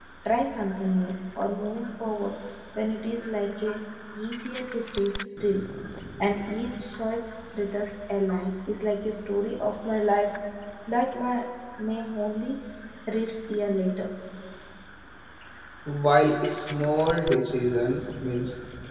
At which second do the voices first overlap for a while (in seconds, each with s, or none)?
none